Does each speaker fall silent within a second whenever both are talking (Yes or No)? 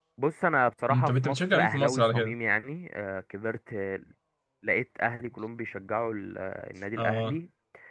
No